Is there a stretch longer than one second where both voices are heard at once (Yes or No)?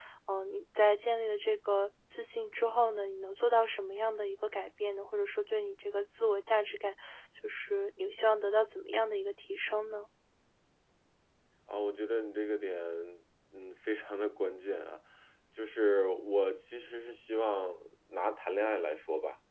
No